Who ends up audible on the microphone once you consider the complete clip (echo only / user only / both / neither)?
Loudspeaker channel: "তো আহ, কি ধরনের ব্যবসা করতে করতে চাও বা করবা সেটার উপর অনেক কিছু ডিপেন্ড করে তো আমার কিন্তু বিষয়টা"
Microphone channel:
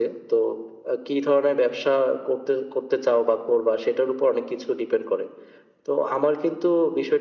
echo only